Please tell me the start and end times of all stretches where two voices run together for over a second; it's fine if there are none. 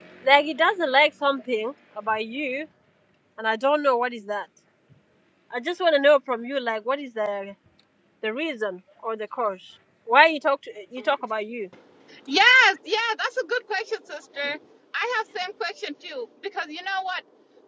none

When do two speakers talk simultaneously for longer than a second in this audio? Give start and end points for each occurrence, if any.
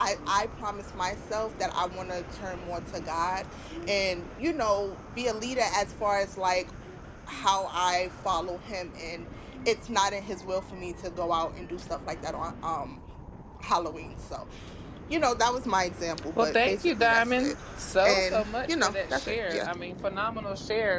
16.4-17.6, 18.0-19.7

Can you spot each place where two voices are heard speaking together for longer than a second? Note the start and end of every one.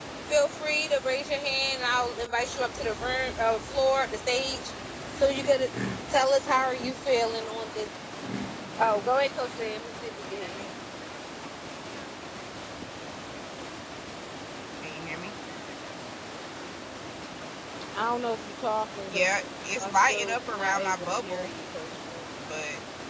19.8-21.5

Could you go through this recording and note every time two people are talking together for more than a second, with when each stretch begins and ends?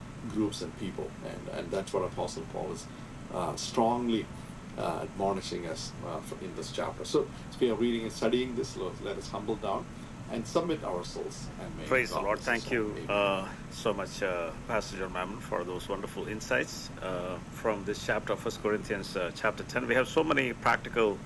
11.9-13.4

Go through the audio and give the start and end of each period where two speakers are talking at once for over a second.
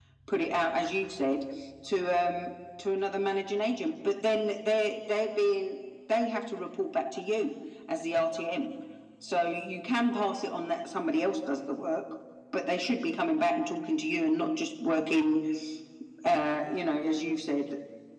none

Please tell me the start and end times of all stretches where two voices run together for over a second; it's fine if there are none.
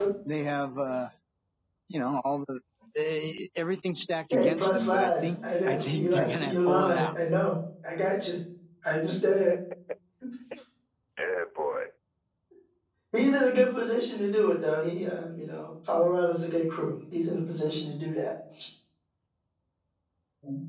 4.3-7.1

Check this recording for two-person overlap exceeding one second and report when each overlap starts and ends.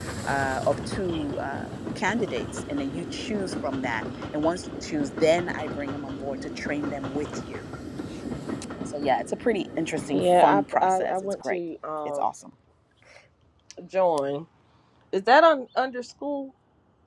10.2-11.6

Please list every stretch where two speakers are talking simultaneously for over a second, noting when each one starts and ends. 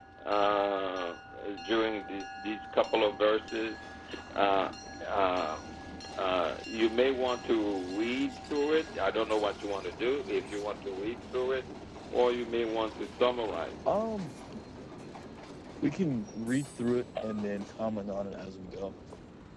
none

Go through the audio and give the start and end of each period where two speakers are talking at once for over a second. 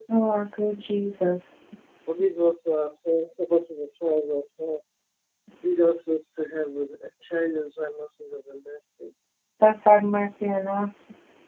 none

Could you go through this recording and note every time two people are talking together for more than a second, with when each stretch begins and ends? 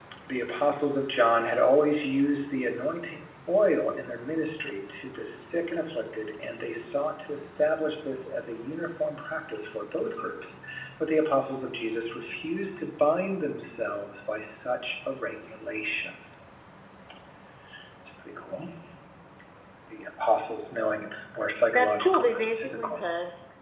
21.7-23.0

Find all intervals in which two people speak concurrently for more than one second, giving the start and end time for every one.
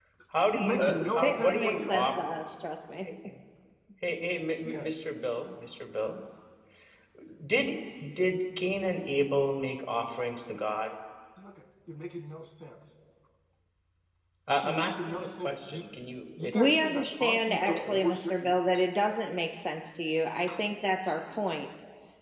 0.5-2.3, 14.6-15.8, 16.4-18.4

